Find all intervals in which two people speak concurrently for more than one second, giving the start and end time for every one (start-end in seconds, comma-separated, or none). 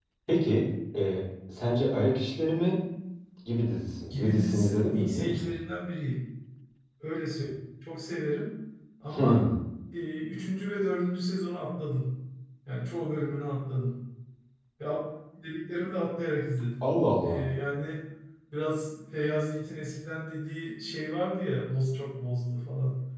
4.1-5.6